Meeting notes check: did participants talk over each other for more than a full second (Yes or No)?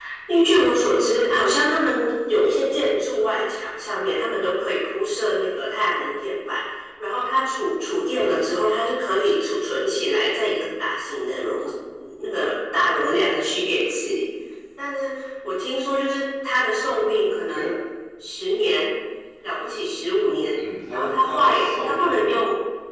Yes